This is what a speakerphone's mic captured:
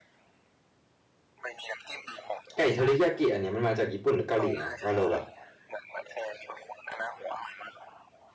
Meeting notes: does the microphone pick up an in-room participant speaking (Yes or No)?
Yes